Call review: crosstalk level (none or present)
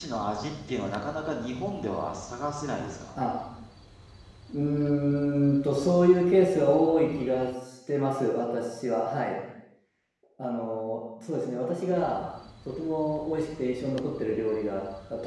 none